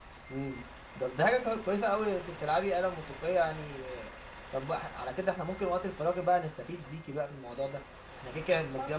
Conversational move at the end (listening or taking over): listening